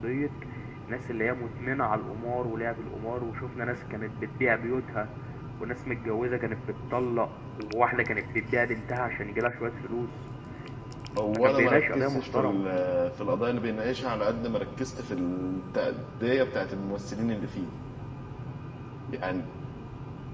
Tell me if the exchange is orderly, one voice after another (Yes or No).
No